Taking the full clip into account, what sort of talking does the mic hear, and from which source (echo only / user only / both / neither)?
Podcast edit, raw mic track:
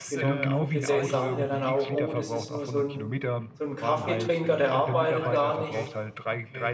both